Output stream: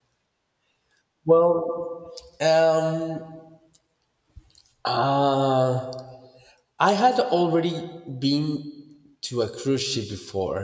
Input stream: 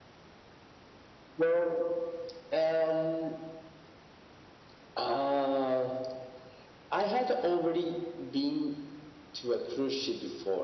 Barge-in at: none

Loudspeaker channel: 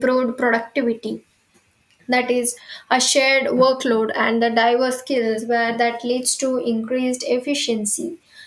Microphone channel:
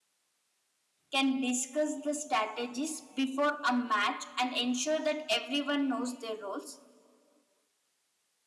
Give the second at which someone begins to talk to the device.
1.1 s

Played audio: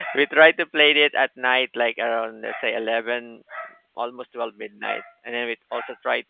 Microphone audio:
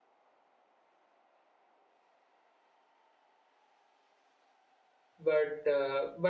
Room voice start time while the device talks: 5.3 s

